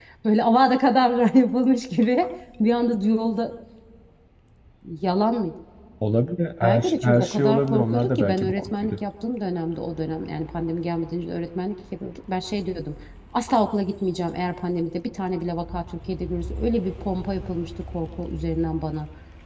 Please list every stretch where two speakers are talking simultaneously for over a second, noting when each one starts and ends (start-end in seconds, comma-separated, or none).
6.6-8.9